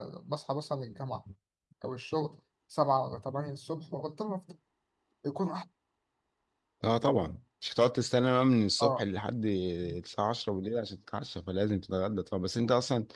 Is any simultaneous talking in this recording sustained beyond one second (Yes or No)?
No